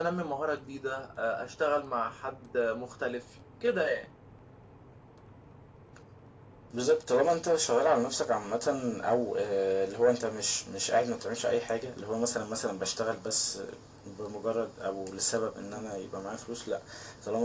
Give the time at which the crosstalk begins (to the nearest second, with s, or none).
none